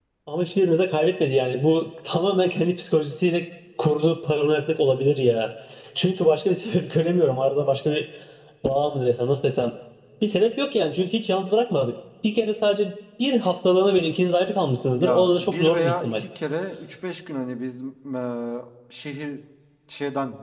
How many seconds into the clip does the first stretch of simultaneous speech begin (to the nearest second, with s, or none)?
15 s